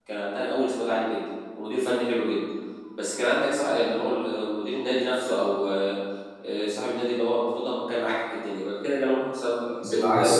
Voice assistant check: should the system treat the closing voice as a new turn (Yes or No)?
Yes